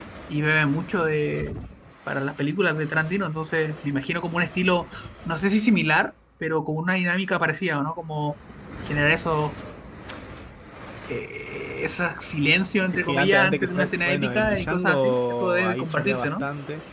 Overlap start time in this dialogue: 13.1 s

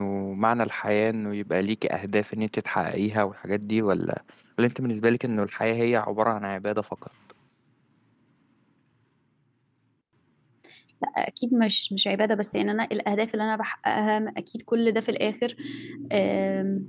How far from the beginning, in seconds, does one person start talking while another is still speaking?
none

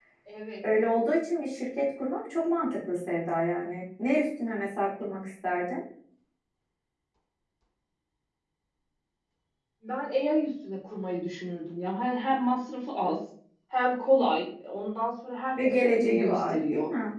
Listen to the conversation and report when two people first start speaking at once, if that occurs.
15.6 s

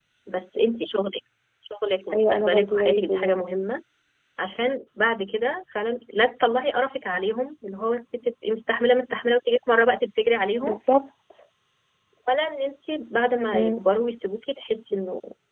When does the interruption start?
2.1 s

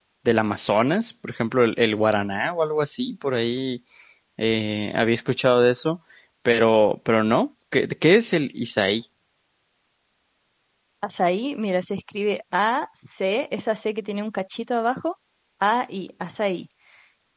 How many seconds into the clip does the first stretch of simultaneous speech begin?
none

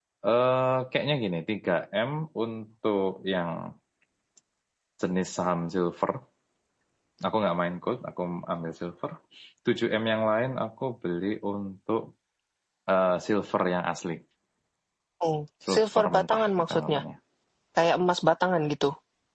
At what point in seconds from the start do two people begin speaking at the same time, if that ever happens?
15.7 s

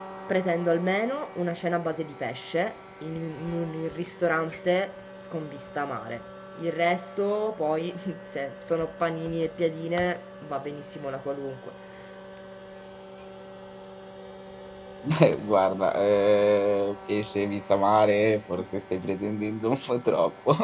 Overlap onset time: none

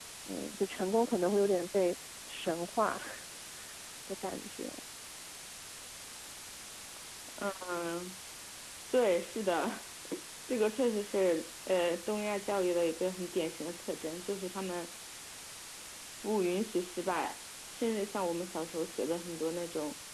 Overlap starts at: none

